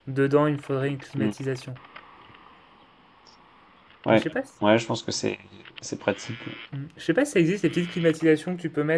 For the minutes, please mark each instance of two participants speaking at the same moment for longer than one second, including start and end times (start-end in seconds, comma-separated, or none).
none